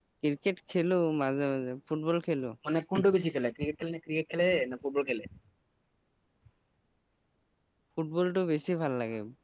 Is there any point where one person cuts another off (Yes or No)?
No